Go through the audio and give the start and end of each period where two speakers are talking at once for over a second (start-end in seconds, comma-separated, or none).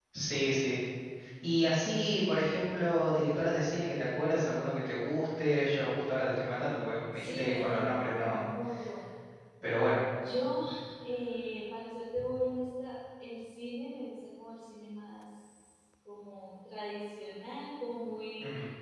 7.1-8.4